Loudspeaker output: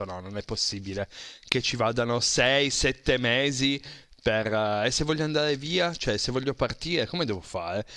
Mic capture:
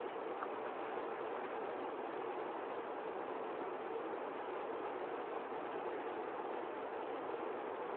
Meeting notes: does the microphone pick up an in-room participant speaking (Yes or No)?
No